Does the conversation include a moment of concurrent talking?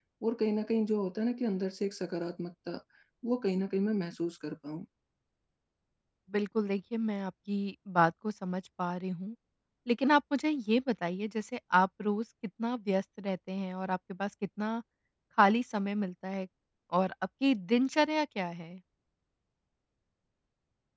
No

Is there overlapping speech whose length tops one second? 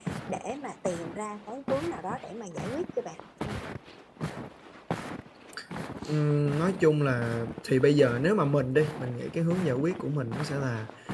No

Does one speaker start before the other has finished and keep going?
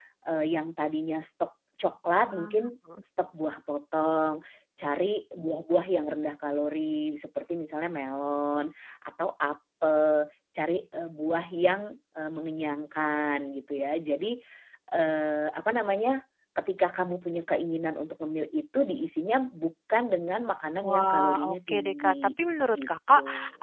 Yes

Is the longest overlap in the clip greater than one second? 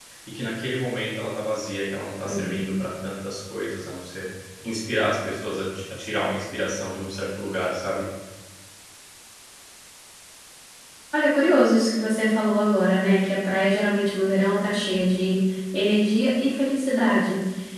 No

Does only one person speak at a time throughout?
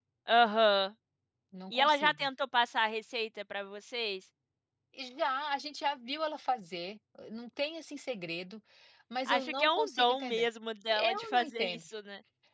No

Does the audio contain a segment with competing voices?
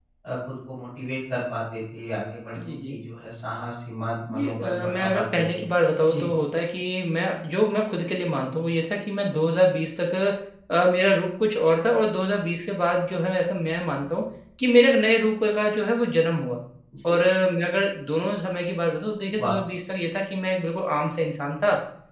Yes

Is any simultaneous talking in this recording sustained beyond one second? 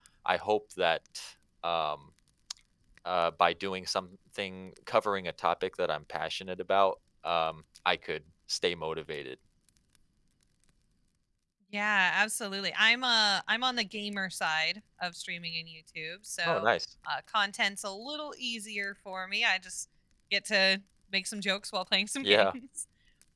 No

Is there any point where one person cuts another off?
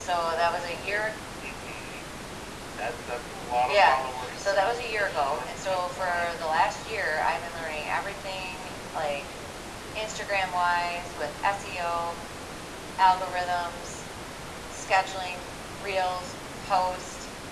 Yes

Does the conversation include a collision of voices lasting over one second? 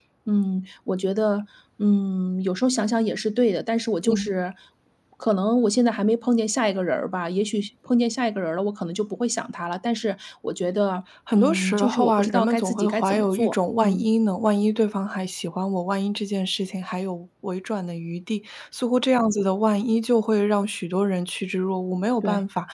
Yes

